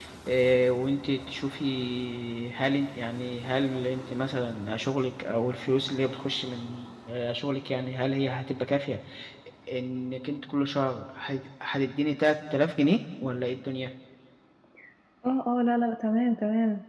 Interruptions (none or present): none